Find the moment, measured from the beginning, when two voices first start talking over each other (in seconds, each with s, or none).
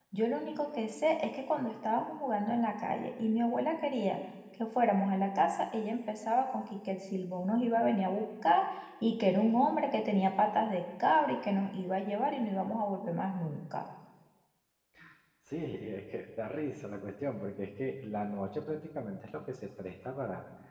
none